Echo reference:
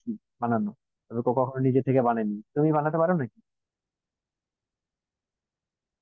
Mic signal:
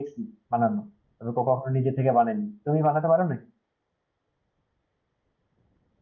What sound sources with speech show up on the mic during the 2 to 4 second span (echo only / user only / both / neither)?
echo only